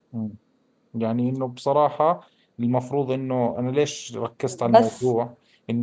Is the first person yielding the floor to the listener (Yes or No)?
No